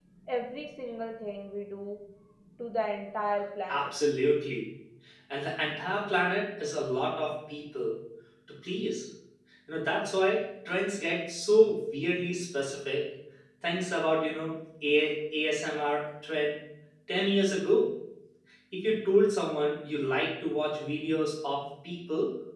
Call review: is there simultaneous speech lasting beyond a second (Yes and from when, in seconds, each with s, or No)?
No